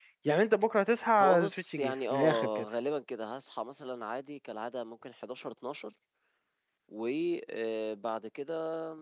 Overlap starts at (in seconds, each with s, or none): 1.2 s